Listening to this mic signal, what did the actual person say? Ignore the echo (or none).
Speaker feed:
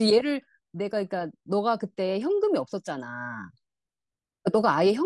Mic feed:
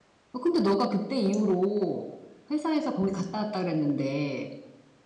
어, 근데 너가 그때 이후로 회사에서 거기 갔다 왔다 그랬는데